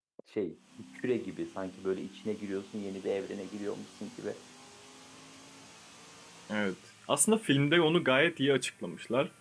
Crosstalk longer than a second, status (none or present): none